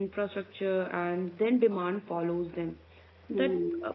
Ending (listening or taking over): listening